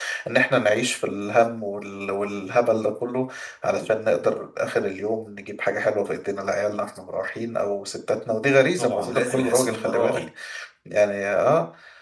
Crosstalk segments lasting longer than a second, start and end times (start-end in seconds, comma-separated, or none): 8.8-10.2